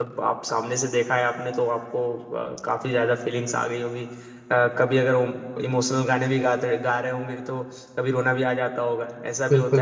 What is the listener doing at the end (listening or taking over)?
taking over